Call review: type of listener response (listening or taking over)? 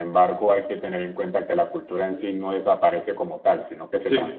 listening